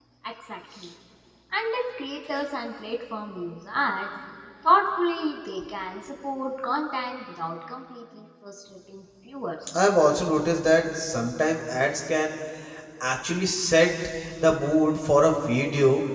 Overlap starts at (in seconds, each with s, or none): none